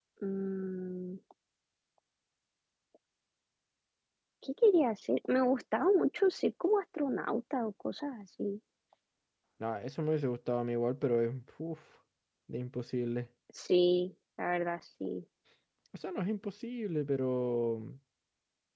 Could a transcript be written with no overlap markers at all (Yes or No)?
Yes